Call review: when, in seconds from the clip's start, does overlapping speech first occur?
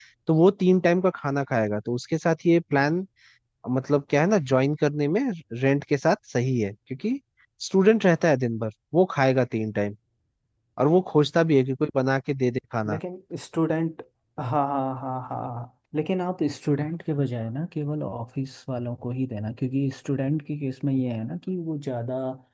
none

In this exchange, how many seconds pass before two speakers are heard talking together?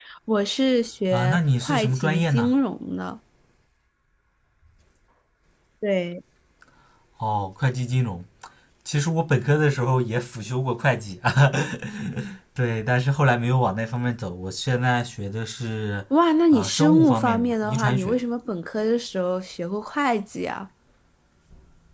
1.1 s

